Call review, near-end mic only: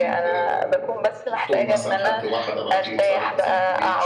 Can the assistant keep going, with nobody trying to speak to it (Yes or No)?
No